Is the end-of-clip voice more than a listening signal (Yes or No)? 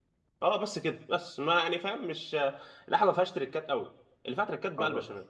No